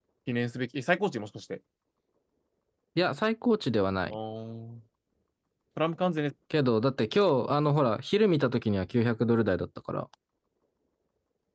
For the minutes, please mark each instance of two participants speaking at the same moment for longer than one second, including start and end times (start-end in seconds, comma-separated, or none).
none